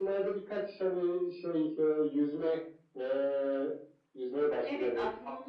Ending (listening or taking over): taking over